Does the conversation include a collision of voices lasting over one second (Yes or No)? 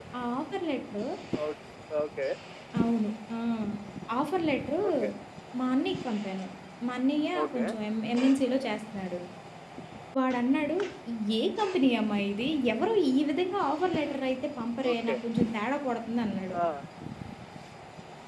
No